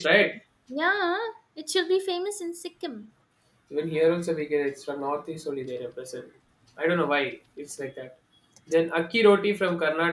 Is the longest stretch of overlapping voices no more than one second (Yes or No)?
Yes